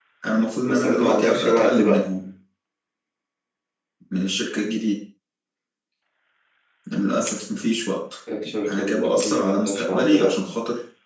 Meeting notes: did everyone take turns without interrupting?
No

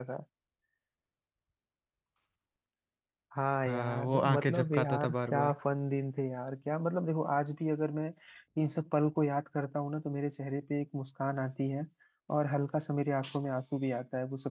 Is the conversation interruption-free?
No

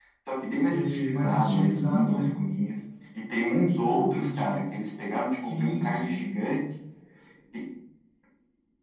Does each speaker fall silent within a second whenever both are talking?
No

